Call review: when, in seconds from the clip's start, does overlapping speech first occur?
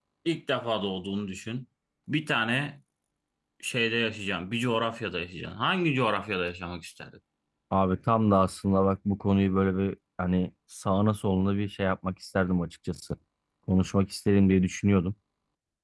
none

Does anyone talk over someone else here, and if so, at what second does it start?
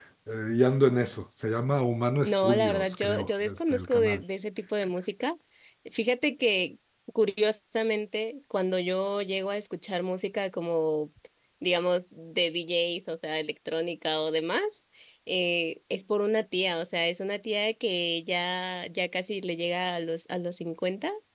2.2 s

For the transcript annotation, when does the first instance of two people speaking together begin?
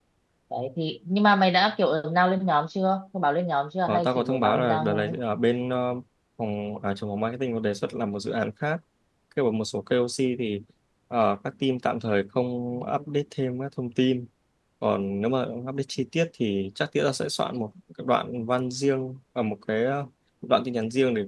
3.9 s

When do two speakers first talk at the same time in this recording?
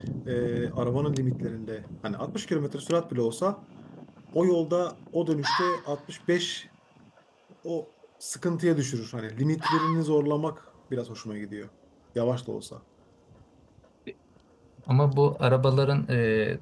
none

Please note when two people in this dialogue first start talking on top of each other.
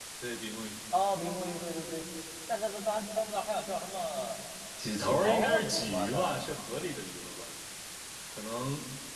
5.0 s

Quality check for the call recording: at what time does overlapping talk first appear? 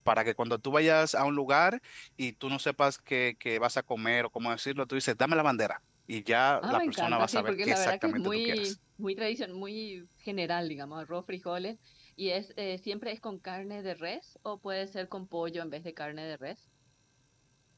6.6 s

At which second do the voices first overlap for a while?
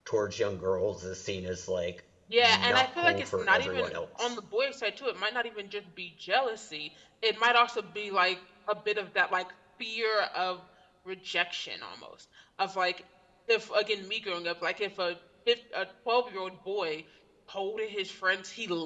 2.3 s

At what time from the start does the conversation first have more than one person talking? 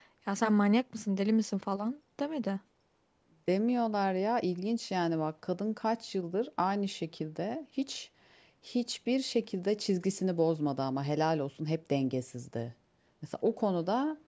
none

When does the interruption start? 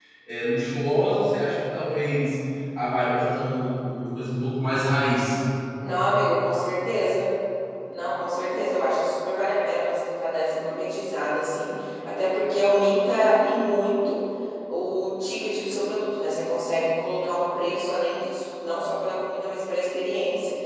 none

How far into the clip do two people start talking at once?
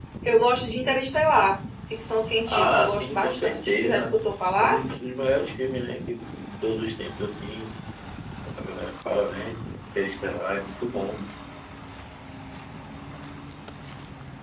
2.4 s

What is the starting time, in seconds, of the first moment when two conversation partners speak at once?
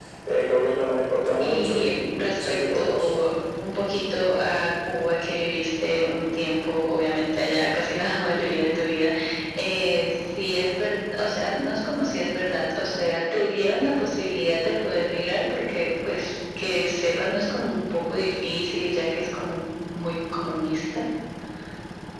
1.4 s

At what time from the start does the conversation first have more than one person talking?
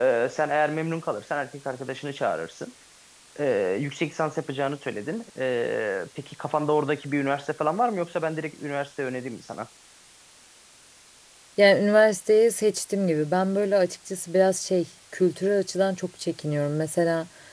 none

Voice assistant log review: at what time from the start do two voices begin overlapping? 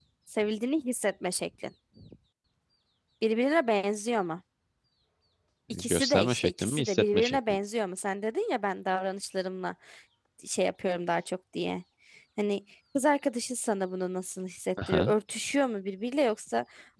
5.7 s

